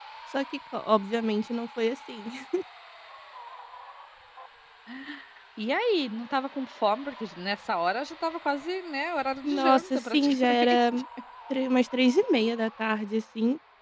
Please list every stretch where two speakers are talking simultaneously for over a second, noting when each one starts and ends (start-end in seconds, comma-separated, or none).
9.4-10.8